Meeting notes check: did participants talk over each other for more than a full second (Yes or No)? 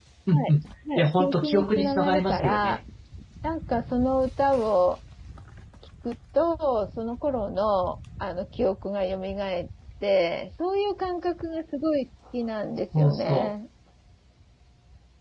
Yes